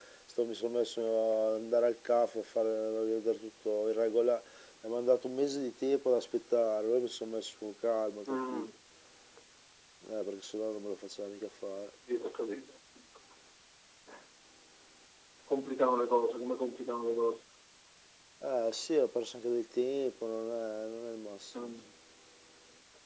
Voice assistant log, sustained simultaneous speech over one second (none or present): none